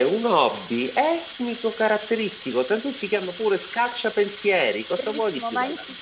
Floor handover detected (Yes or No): Yes